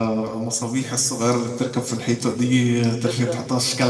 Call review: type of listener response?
listening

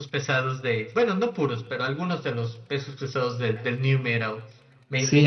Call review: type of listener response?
taking over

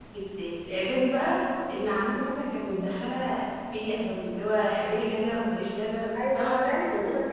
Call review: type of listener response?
taking over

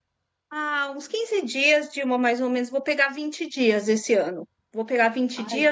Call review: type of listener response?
listening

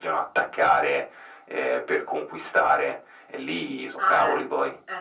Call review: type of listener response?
taking over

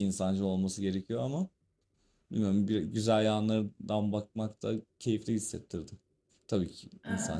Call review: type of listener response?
taking over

